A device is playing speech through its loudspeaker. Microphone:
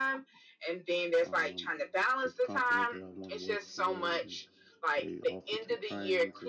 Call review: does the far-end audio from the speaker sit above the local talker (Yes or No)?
Yes